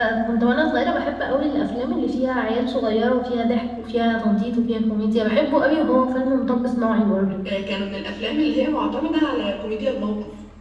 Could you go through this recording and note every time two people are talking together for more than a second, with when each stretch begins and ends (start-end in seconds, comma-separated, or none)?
none